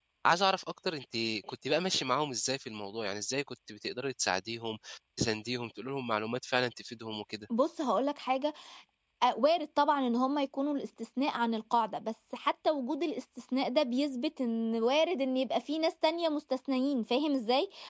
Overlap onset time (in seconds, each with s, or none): none